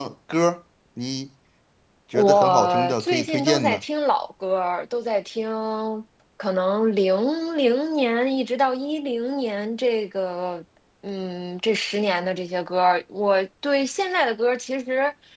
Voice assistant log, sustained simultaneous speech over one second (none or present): present